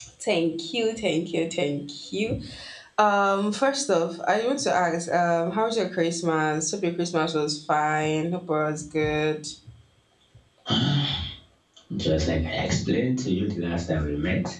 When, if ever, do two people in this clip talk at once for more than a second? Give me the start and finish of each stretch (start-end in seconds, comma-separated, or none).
none